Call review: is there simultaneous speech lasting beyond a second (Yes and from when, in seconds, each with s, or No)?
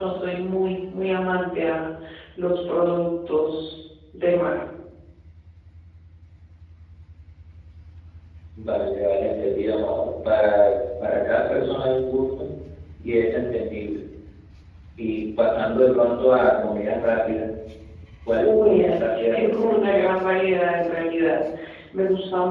Yes, from 18.3 s